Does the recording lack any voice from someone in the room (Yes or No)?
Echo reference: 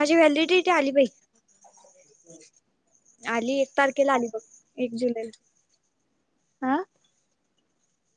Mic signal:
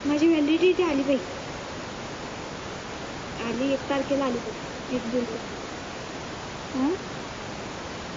Yes